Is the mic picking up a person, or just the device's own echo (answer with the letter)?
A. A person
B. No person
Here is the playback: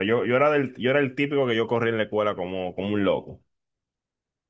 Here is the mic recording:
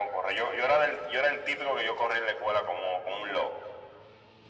B